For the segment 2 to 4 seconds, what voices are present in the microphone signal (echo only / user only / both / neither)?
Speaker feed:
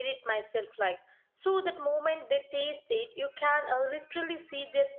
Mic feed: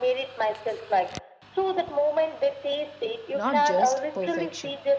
both